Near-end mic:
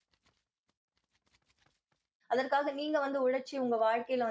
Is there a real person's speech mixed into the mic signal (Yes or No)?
Yes